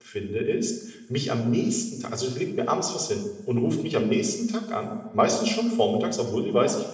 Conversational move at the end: listening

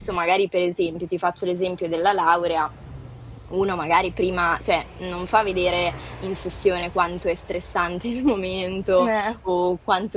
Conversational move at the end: listening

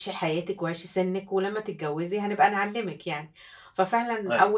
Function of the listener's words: listening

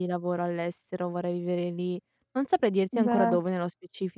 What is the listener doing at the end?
listening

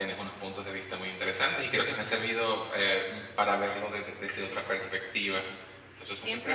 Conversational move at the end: taking over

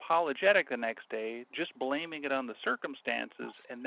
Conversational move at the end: listening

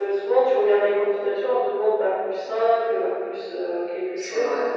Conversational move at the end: taking over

